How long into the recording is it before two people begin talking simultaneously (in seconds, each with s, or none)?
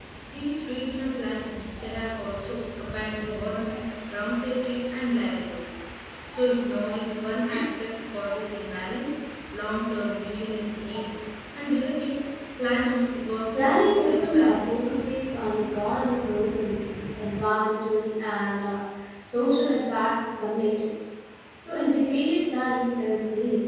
13.5 s